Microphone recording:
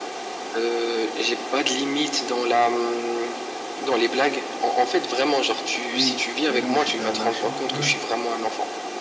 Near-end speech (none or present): present